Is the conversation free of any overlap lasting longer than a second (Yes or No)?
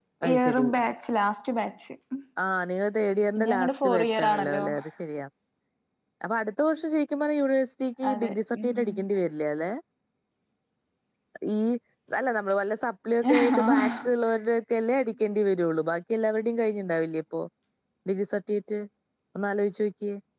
No